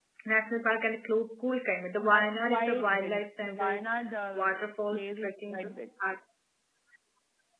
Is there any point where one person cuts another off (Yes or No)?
Yes